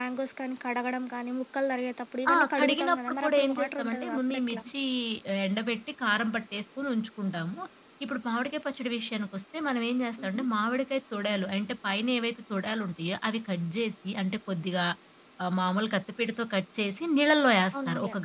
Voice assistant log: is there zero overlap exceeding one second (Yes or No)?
No